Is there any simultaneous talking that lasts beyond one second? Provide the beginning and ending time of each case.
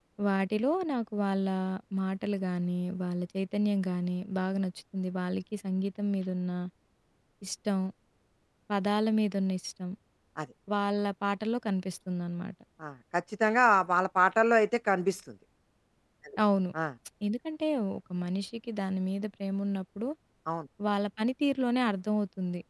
none

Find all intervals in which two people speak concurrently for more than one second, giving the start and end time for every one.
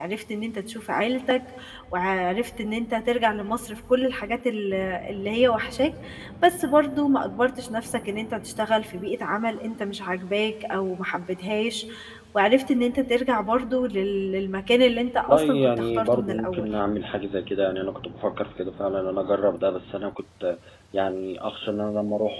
15.3-16.7

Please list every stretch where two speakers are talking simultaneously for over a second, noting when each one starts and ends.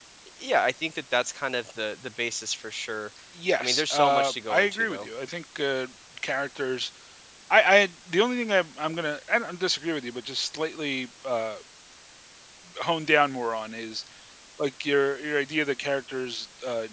3.6-5.1

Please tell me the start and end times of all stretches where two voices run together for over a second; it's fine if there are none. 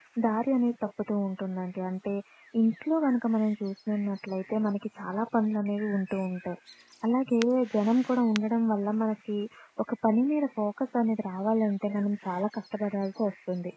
none

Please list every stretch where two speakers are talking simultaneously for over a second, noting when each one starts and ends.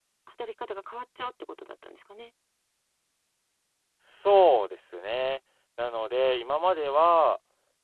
none

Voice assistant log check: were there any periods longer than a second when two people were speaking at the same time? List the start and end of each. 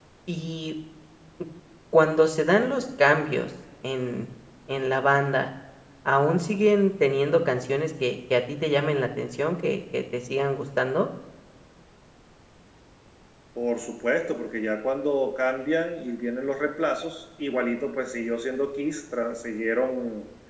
none

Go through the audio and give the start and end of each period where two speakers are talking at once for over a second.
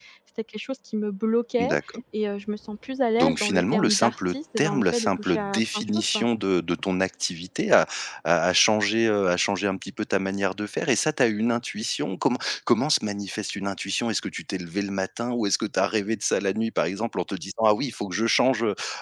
3.2-6.2

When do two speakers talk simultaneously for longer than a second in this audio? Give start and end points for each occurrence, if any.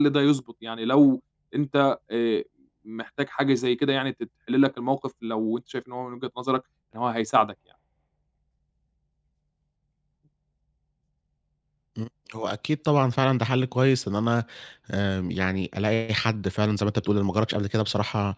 none

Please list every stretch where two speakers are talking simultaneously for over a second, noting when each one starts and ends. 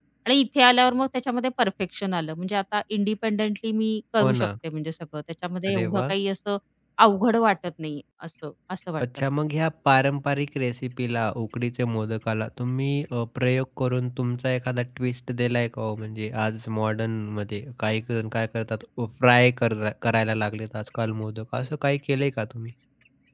none

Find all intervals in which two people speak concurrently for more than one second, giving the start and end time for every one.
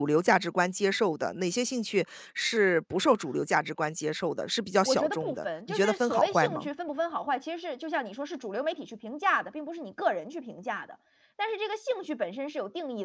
4.8-6.7

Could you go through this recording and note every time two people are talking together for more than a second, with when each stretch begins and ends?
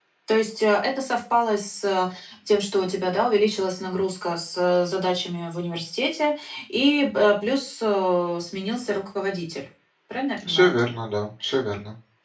none

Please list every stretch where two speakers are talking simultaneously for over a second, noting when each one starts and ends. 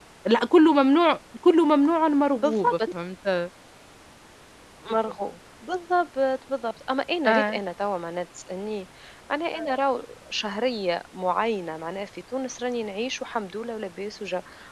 none

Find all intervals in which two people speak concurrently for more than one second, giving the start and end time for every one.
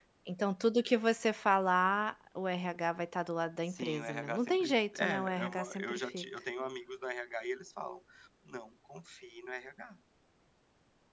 3.7-6.2

